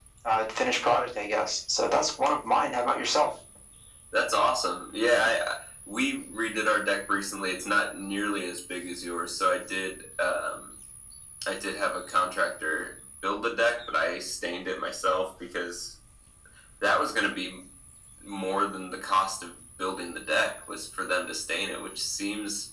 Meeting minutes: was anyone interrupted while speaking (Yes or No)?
No